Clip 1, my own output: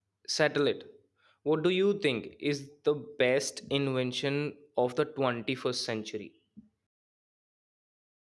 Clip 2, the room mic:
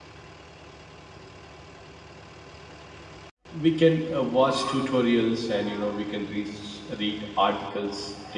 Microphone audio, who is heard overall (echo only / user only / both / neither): user only